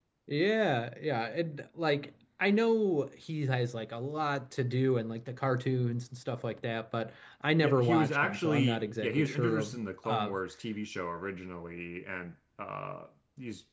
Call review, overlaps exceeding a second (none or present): present